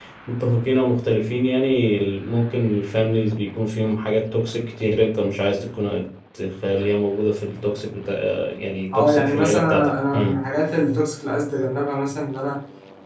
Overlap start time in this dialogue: 8.9 s

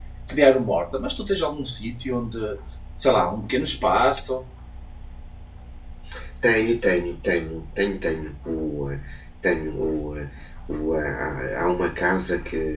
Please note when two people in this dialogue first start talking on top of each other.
none

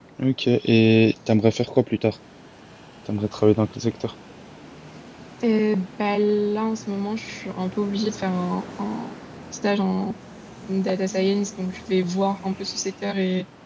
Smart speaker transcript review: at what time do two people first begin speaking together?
none

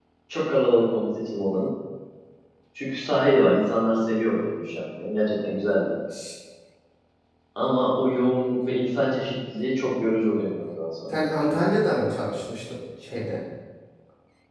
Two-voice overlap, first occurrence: none

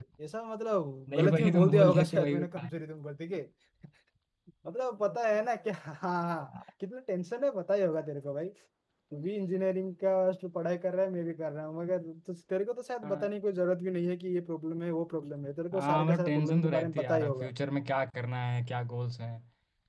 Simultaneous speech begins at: 1.1 s

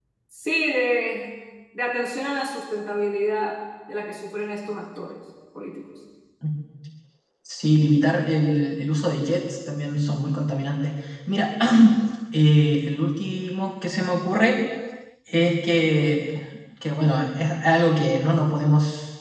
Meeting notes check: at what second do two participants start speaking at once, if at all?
none

